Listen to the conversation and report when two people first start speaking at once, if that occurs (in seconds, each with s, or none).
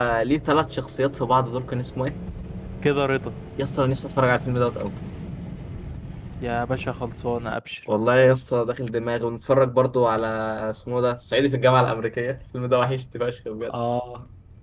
none